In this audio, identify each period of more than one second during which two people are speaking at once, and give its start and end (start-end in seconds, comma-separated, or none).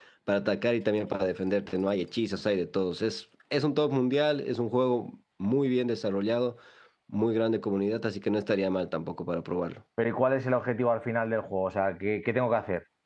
none